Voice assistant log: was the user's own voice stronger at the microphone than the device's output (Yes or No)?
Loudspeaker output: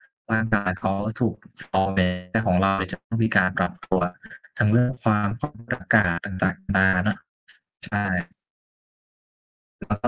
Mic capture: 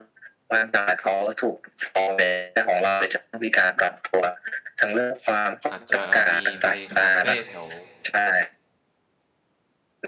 No